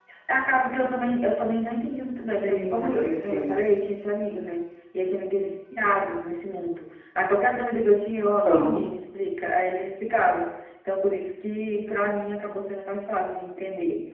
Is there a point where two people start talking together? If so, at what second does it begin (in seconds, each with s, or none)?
2.3 s